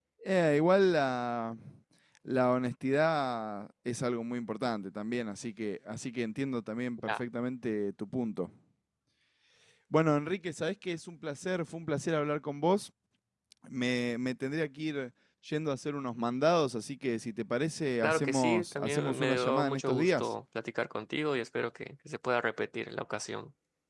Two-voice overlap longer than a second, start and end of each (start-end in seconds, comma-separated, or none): 18.0-20.3